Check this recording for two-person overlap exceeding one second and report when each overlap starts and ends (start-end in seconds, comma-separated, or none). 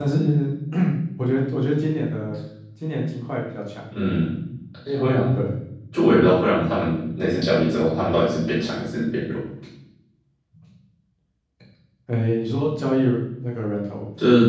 none